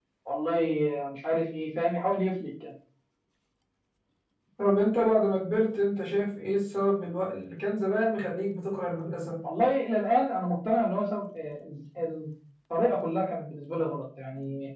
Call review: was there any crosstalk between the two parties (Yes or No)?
No